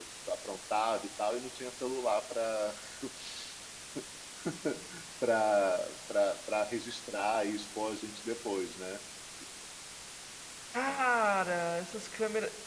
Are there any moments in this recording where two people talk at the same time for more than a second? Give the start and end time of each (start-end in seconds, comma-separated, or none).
none